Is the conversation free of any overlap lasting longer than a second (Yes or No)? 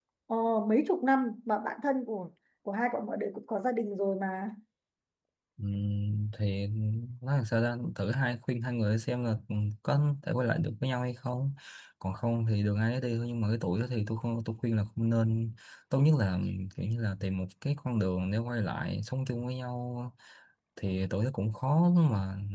Yes